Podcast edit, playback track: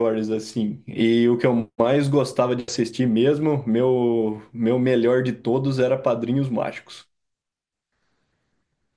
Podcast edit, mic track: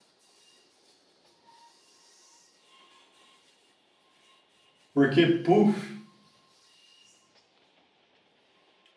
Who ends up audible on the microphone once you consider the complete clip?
user only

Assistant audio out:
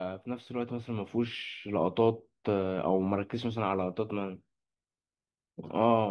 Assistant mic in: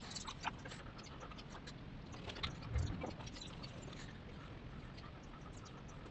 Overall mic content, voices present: neither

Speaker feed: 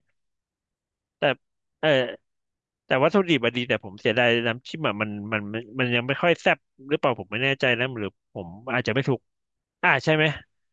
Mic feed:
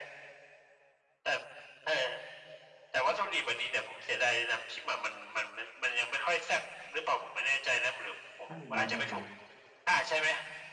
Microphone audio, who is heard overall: both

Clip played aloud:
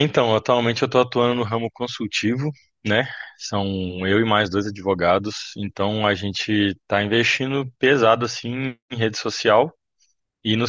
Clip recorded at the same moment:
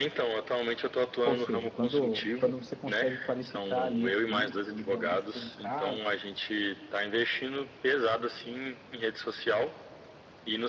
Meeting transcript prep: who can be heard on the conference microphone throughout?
both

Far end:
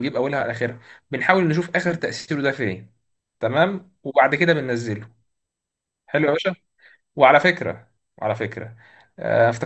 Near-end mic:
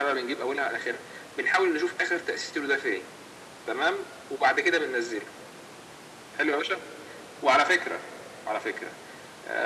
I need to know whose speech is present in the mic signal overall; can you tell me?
echo only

